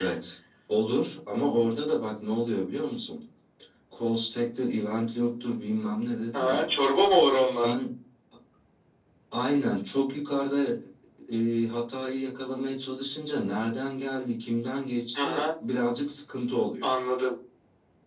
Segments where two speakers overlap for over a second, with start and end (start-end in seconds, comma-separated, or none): none